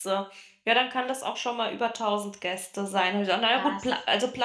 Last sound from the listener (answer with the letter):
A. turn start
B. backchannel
B